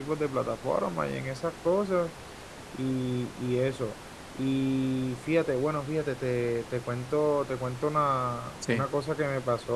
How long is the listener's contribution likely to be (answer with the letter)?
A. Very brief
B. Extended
A